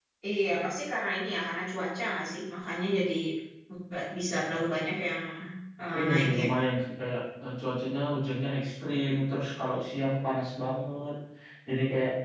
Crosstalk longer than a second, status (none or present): none